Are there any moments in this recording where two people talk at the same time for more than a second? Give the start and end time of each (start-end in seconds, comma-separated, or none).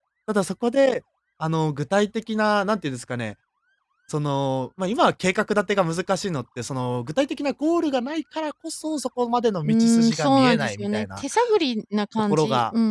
9.7-11.2